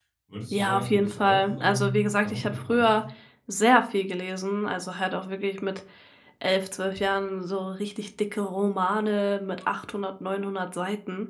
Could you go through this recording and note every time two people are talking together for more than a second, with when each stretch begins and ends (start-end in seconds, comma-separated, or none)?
0.5-3.0